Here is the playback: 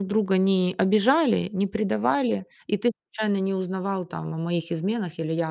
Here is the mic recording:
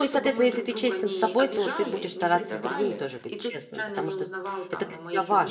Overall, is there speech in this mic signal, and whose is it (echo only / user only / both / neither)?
both